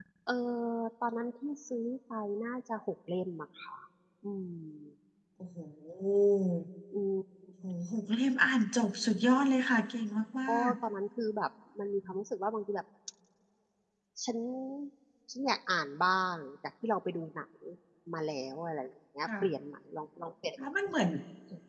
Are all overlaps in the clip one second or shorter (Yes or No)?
Yes